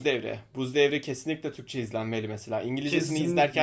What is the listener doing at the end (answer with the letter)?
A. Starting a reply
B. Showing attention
A